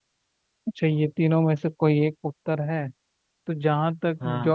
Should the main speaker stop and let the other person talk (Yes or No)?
No